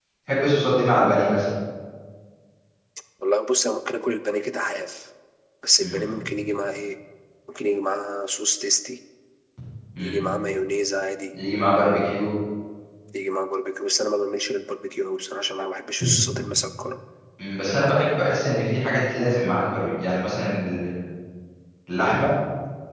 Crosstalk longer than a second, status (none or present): none